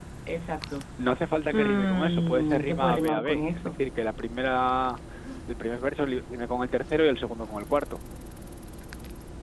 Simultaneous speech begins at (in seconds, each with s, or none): 1.5 s